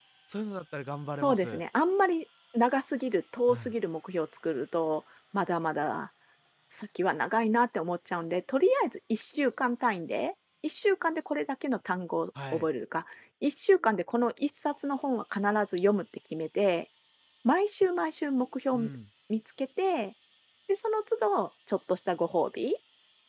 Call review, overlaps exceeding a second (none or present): none